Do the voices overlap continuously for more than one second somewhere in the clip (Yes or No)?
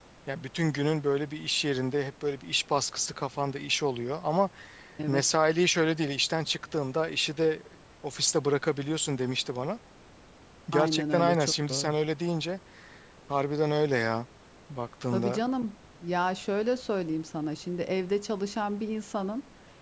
Yes